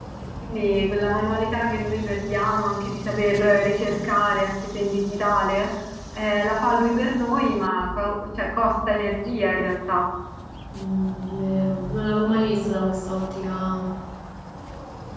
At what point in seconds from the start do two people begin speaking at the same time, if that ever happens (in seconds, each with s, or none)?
none